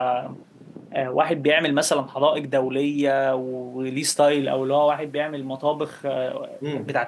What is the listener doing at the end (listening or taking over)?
taking over